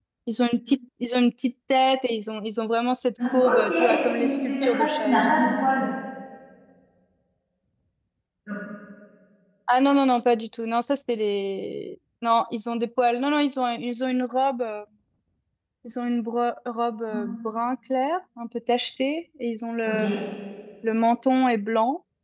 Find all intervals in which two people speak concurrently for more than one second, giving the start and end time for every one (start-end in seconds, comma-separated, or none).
3.3-5.7